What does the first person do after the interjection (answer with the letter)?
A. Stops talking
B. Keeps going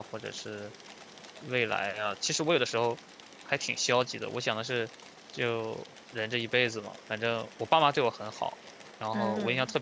B